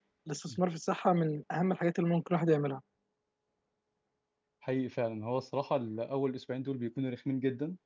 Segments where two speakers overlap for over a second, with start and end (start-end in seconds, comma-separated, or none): none